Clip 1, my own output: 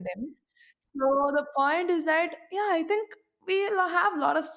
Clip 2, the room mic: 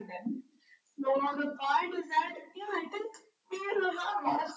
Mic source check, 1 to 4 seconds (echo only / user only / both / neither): echo only